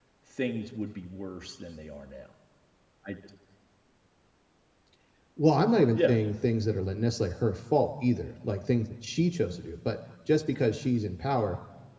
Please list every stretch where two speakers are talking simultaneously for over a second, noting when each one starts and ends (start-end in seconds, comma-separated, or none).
none